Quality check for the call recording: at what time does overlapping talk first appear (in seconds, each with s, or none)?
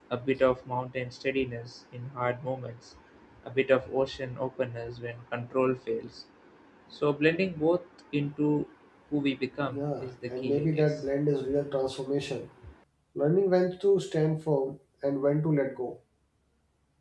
9.7 s